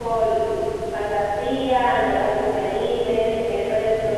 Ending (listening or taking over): listening